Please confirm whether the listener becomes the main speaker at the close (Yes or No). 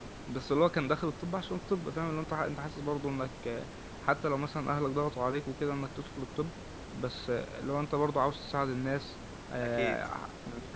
No